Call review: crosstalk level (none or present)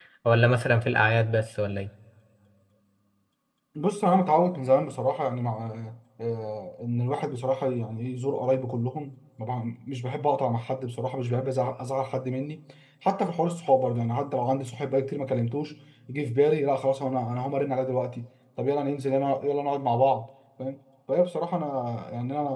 none